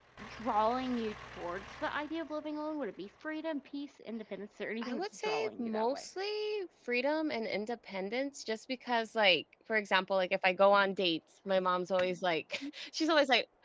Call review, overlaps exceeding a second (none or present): present